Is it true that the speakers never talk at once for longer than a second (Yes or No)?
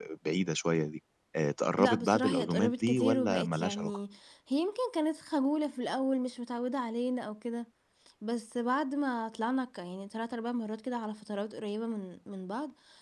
No